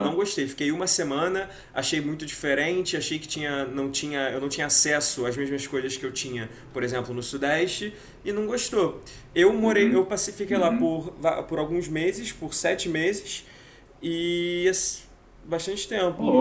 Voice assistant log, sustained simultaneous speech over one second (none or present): none